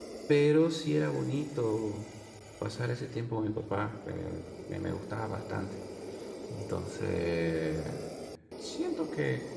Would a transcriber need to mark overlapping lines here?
No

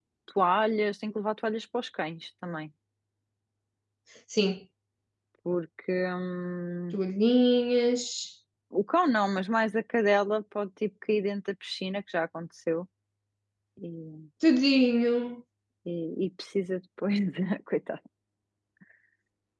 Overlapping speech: No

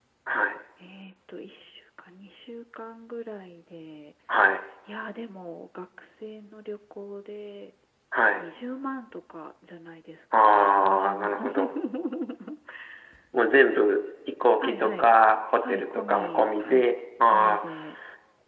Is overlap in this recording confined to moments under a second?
No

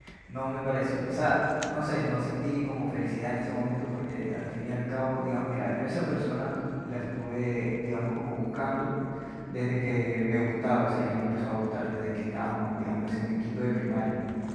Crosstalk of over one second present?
No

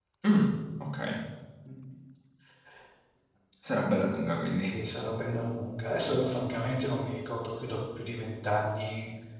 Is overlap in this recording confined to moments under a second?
Yes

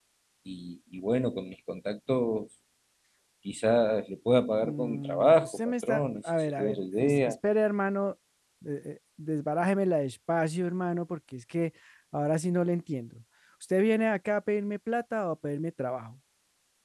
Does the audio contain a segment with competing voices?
Yes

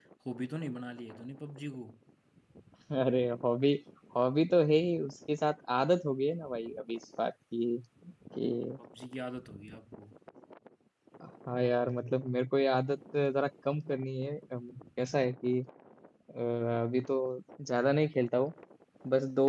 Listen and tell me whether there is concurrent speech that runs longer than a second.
No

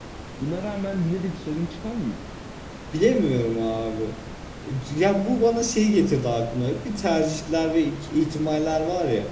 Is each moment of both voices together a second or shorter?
Yes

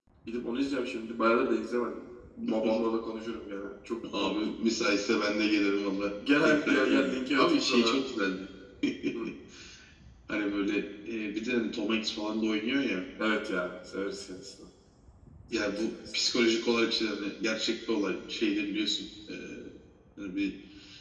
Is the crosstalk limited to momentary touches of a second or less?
No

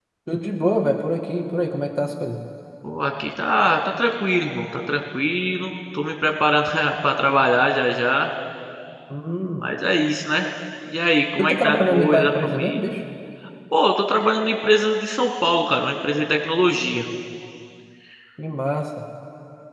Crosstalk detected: Yes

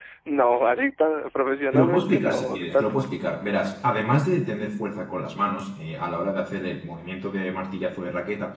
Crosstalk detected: Yes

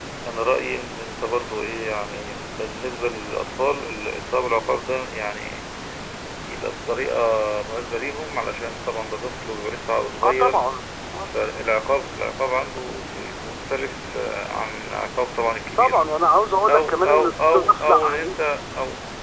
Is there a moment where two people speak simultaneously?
Yes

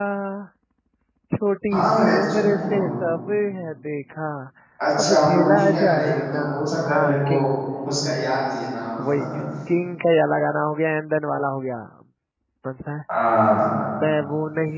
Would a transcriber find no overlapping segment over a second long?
No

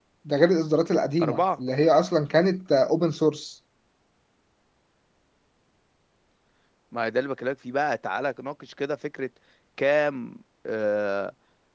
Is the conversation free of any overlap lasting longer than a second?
Yes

